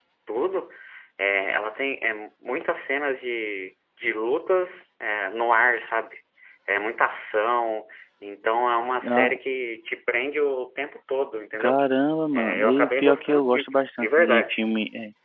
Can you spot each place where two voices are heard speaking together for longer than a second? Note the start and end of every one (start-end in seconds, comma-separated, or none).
12.3-14.6